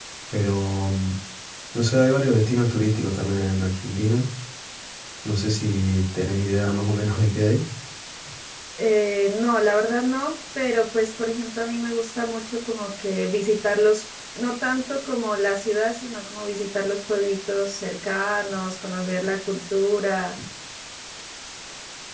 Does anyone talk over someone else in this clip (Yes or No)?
No